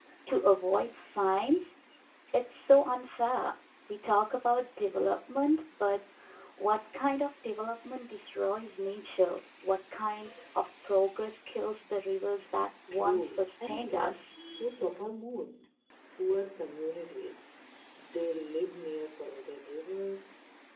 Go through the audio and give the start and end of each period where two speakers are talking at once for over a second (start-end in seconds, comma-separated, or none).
12.9-14.3